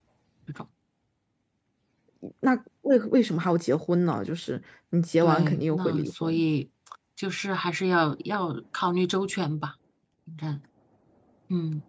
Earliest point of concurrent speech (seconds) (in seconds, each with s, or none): 5.2 s